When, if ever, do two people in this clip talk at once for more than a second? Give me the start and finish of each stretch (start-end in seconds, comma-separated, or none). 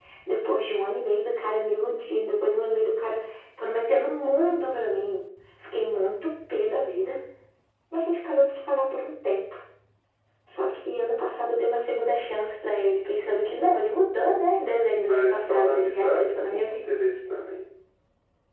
14.9-16.8